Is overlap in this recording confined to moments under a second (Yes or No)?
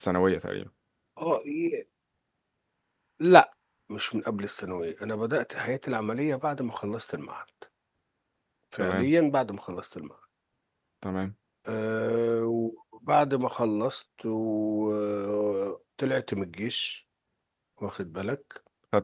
Yes